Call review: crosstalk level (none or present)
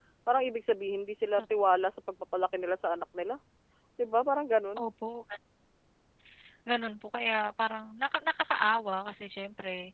none